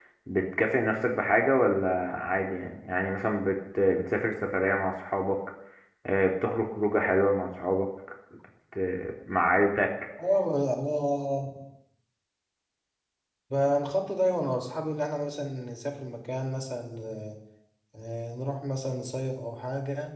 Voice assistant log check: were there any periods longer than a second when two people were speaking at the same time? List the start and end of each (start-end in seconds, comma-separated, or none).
none